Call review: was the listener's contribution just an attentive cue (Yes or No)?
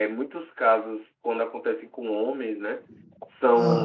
Yes